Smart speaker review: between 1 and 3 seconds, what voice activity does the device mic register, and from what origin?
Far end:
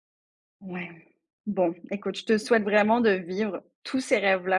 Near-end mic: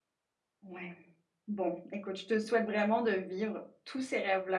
echo only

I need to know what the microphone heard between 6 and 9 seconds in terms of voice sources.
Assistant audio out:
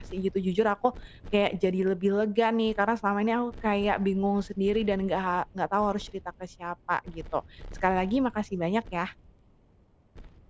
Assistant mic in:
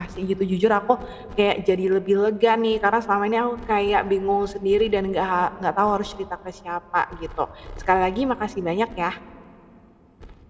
echo only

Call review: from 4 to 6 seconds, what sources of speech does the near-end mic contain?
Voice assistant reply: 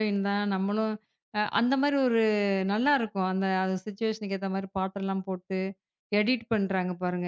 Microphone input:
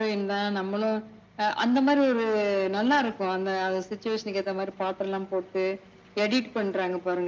echo only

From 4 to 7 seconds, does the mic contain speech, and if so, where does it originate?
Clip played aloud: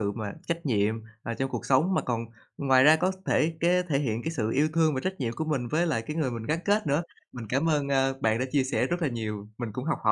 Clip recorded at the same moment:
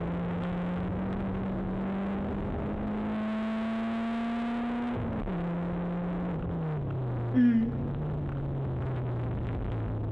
neither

